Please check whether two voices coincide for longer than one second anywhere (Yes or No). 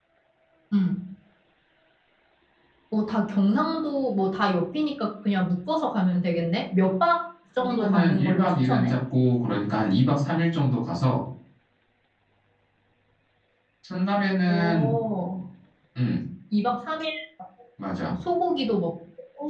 Yes